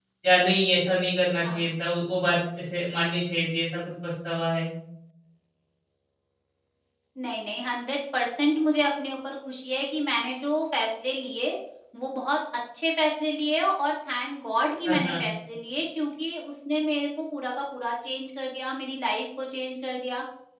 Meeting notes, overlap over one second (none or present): none